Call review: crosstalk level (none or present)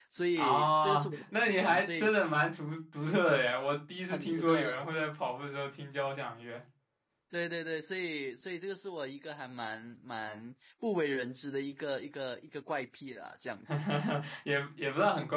present